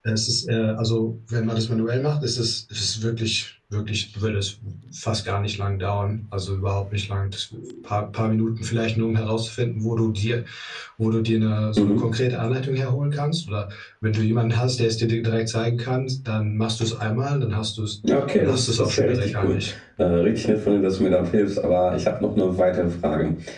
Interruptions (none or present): present